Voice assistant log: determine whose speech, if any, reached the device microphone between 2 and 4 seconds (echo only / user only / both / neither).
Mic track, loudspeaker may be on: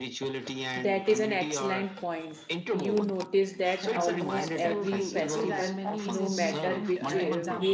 both